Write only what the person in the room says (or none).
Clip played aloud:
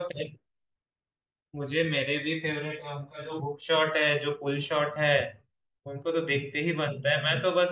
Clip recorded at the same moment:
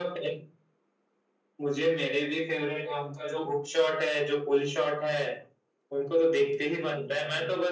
none